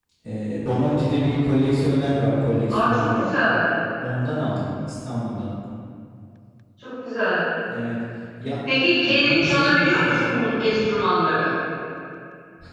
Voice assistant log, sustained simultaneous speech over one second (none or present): present